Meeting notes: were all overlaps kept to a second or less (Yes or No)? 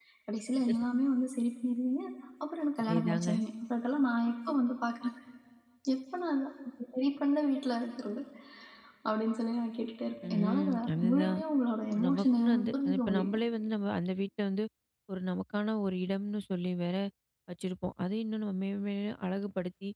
No